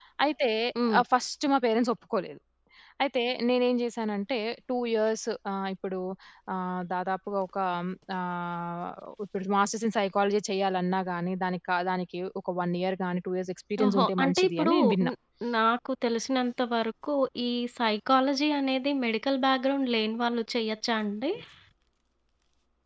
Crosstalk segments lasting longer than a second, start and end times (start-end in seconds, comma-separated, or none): 13.8-15.1